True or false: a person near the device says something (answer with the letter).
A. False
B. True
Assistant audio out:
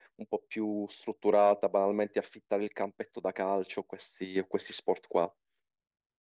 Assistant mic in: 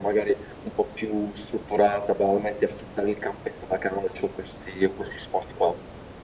A